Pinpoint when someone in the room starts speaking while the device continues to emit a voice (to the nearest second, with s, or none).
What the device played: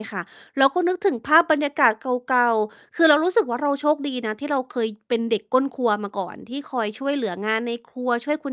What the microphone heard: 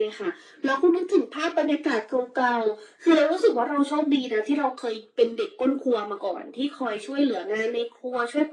none